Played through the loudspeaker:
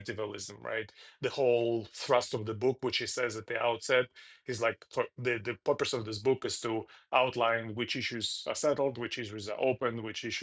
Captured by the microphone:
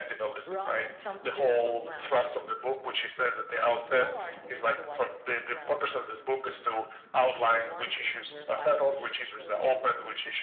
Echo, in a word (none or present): present